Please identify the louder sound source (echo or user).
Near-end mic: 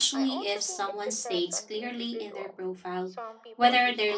user